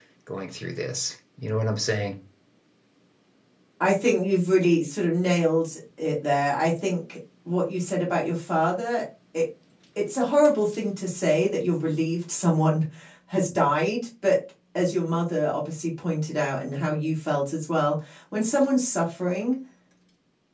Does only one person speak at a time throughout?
Yes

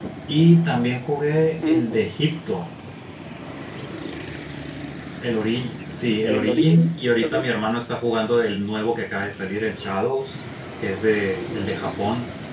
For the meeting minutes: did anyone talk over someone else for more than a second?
Yes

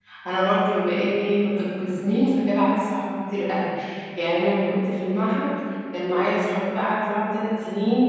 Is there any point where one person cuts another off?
No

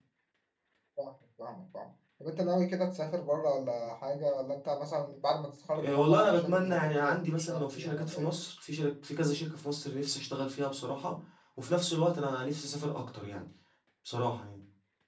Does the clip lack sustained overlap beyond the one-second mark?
No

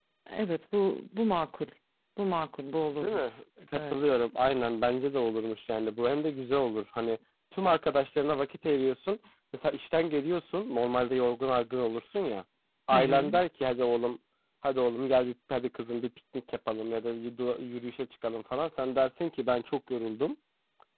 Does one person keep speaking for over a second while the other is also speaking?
No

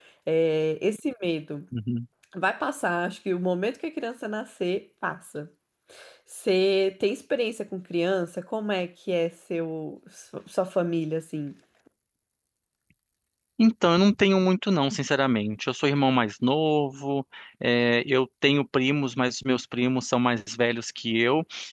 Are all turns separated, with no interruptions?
Yes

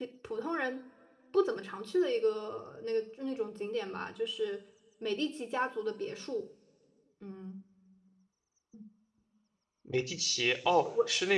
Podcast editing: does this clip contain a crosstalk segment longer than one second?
No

